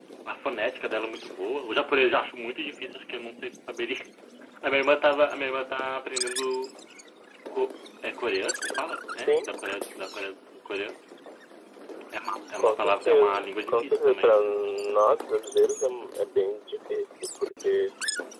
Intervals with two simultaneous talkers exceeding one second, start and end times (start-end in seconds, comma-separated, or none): 12.6-14.4